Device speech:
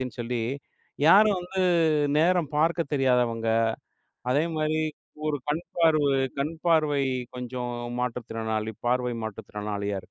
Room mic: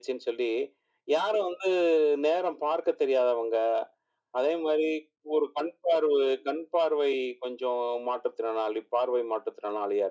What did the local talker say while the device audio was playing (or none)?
none